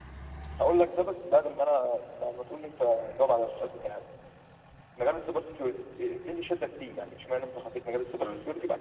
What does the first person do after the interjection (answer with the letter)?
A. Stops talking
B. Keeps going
B